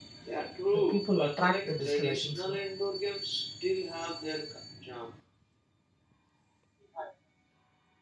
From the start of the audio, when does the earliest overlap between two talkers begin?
0.7 s

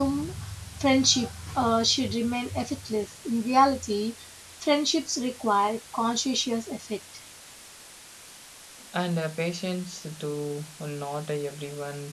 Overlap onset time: none

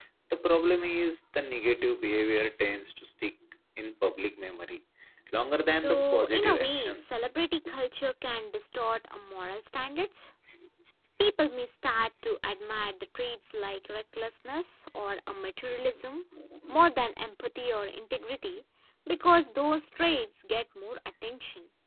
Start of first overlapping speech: 5.8 s

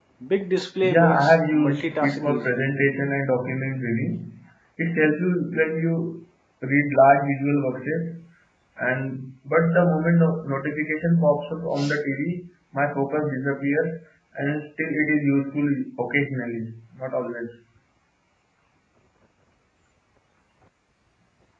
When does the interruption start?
0.8 s

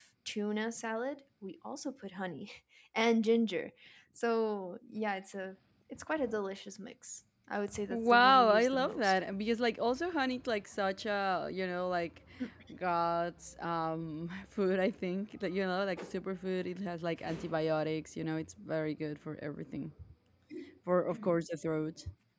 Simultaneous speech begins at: 7.9 s

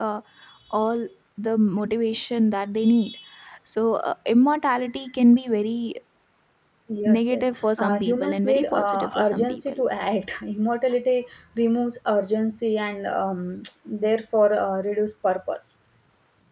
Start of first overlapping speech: 7.0 s

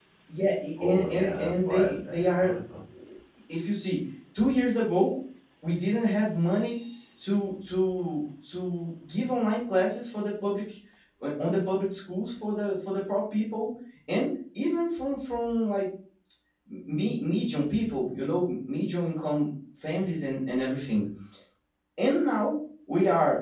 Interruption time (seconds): 0.8 s

